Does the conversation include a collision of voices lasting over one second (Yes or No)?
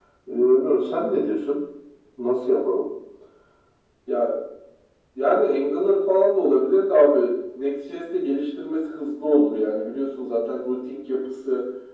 No